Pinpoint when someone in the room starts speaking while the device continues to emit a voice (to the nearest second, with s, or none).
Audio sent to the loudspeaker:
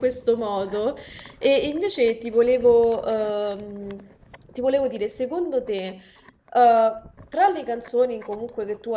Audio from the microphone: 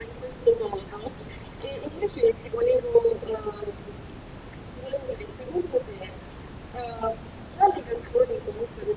none